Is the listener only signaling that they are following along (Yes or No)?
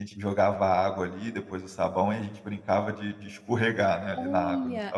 No